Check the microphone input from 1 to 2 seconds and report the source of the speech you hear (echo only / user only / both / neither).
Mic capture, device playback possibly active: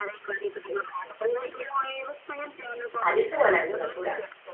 echo only